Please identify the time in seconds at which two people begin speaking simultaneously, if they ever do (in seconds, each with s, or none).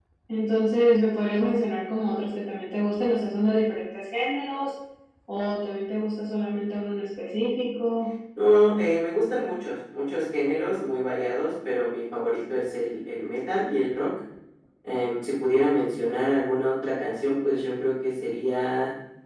none